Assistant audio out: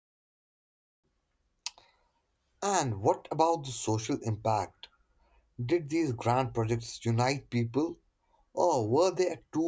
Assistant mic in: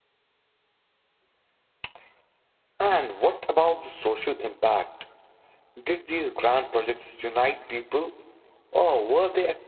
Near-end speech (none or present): none